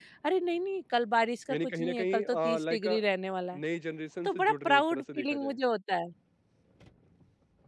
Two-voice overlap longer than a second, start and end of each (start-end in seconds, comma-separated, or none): 1.5-3.0, 4.2-5.6